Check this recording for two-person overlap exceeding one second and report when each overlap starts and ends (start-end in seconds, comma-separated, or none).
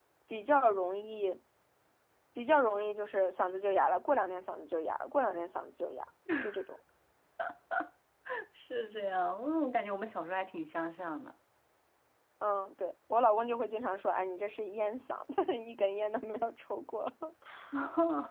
none